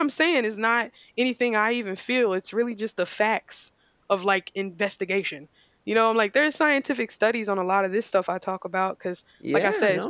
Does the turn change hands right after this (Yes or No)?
Yes